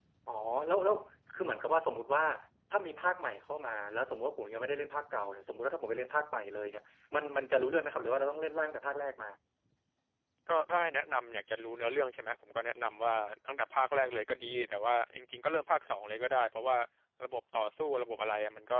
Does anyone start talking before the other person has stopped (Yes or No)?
No